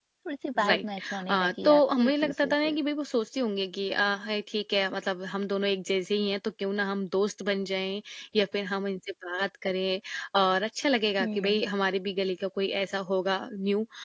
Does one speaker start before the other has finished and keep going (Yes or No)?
Yes